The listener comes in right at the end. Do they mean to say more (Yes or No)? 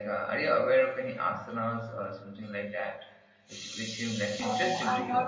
Yes